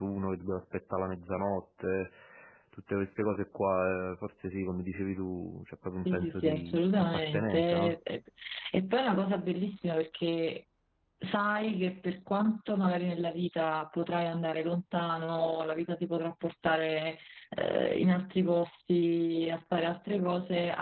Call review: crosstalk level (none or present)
present